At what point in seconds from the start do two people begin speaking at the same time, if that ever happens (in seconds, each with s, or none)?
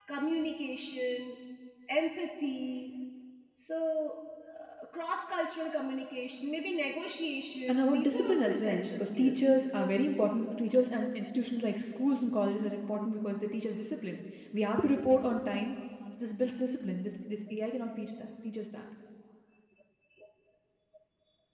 7.7 s